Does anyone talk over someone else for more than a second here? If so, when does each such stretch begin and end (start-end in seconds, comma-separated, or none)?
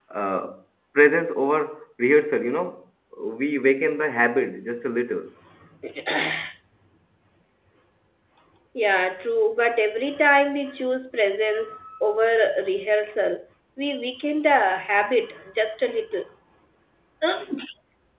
none